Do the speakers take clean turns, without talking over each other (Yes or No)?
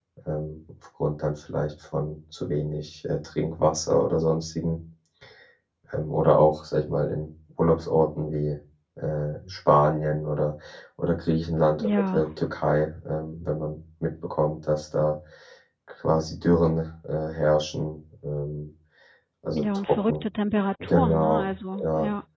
No